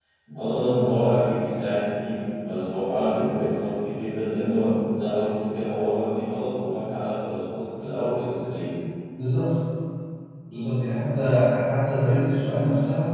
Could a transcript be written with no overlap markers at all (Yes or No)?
Yes